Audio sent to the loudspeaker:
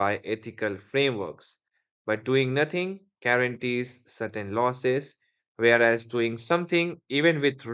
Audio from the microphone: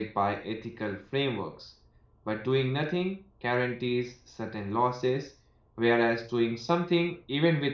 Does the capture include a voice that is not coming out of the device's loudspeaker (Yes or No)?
No